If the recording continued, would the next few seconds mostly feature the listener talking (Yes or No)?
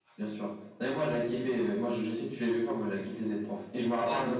No